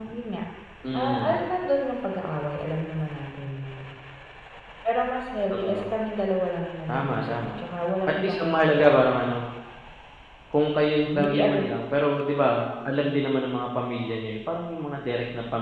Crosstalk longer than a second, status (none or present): present